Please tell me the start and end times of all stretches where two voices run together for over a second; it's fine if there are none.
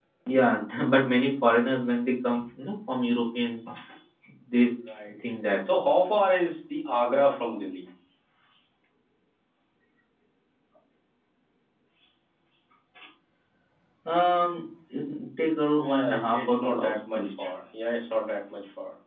15.8-17.4

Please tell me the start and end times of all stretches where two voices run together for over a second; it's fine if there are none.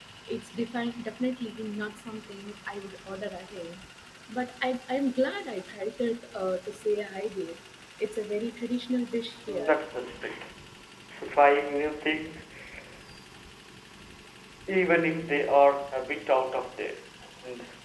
none

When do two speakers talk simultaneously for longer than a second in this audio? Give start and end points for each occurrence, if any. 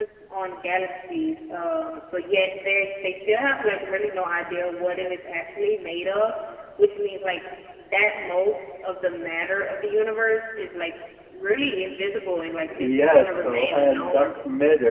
12.8-14.3

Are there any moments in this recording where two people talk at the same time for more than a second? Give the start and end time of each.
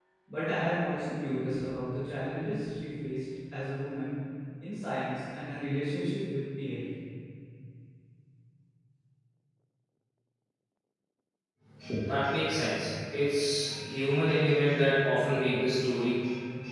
none

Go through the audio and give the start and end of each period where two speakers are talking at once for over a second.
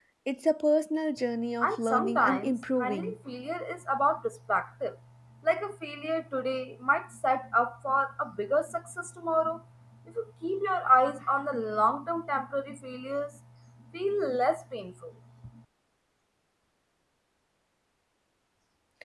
1.6-3.1

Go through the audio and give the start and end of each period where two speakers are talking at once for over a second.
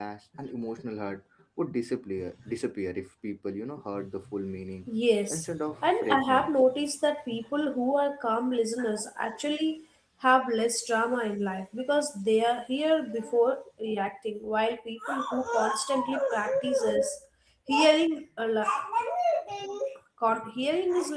5.3-6.5

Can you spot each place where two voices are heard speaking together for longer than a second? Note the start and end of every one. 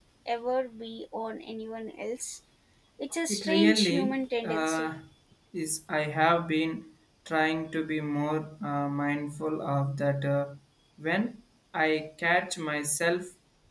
3.3-4.9

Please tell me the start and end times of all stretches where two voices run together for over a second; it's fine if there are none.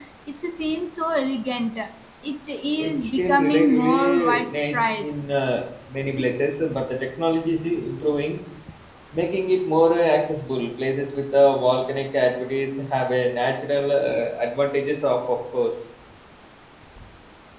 2.8-5.0

